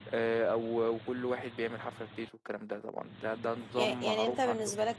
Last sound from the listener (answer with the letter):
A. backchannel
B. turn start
B